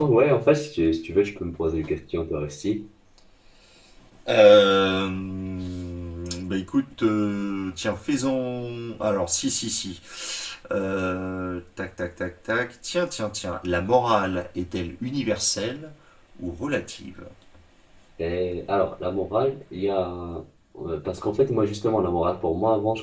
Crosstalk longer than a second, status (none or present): none